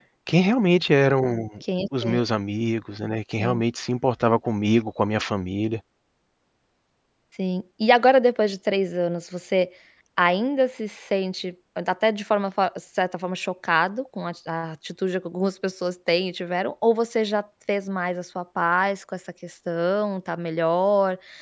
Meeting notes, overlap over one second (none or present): none